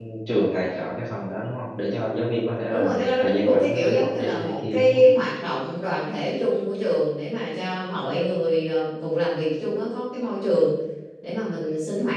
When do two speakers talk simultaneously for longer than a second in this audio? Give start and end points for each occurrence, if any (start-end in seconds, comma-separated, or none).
2.7-5.0